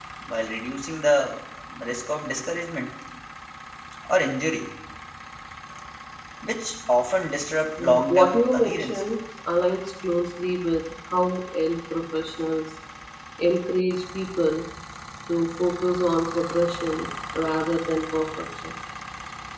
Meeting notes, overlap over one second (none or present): present